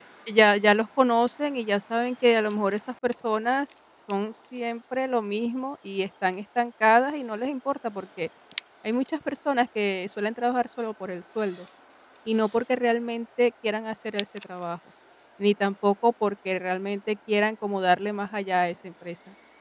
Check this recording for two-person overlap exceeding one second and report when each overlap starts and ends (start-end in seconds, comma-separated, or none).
none